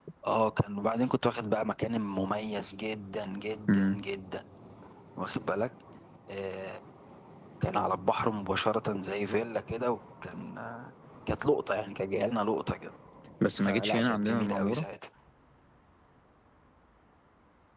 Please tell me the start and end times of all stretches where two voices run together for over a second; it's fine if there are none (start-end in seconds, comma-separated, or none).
13.6-14.8